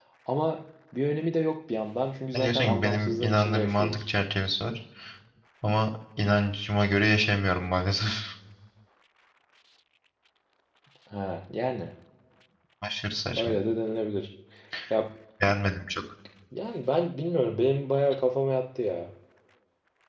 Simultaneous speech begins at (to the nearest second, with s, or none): 2 s